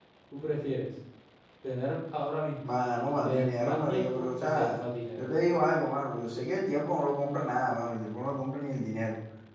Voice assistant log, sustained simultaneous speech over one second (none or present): present